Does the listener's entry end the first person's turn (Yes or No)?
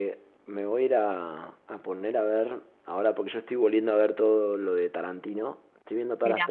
No